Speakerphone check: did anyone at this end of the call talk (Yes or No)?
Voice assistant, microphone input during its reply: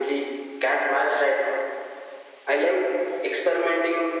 No